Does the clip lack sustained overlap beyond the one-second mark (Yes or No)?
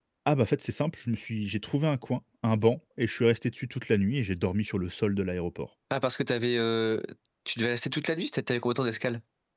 Yes